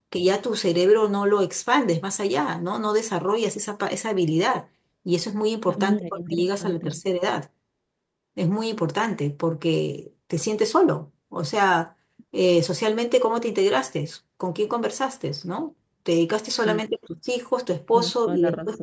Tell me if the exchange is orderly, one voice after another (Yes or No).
No